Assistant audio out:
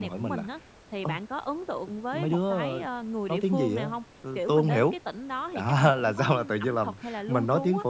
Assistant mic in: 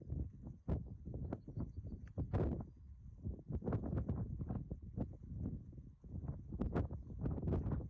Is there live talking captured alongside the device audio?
No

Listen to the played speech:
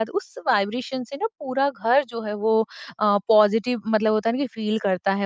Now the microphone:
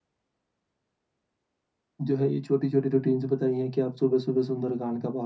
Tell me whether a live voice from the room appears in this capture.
Yes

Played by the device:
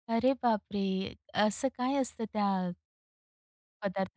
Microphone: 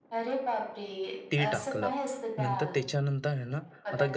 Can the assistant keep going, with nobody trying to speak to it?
No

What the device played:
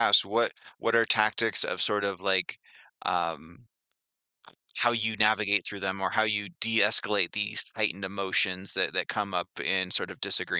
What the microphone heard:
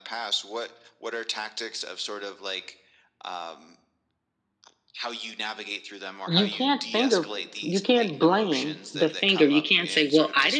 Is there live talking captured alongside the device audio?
Yes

